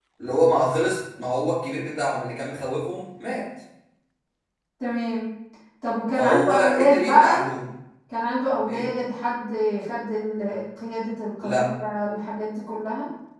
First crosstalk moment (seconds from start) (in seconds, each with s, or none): 6.2 s